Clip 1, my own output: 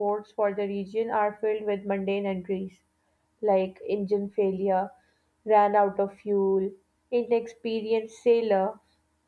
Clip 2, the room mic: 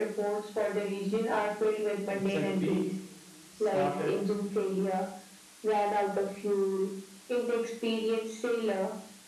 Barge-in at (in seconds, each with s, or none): 2.1 s